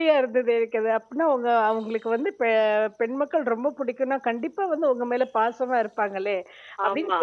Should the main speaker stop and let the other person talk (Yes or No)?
No